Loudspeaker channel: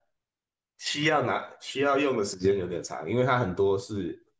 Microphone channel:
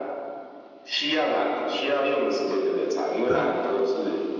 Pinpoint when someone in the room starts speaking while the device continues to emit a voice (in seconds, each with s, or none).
3.3 s